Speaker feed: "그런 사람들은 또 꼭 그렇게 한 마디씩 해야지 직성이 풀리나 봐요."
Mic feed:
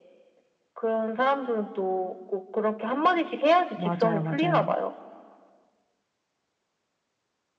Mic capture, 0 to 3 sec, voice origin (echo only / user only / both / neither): echo only